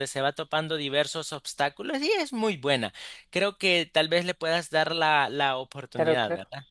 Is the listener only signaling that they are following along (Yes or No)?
No